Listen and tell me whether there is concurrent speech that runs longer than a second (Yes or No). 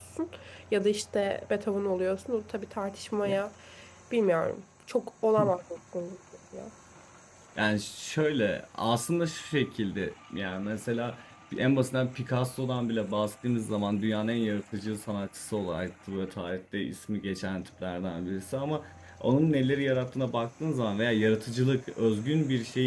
No